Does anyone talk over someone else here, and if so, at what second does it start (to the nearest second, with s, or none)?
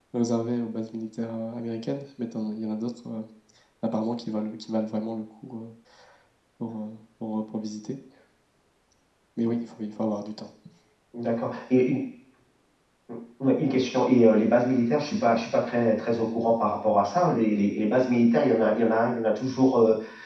none